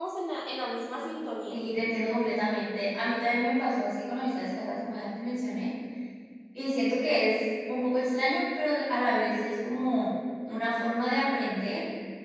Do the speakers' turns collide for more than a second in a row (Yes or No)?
No